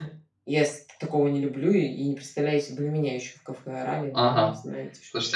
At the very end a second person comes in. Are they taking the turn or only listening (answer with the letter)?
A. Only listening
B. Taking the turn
B